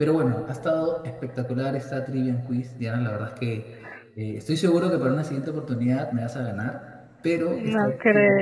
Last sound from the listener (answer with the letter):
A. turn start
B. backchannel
A